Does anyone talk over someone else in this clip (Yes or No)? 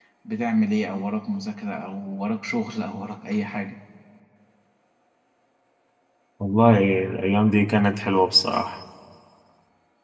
No